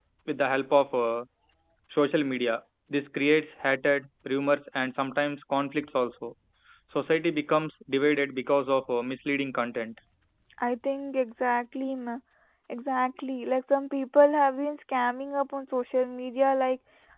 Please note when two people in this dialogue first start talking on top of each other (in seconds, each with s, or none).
none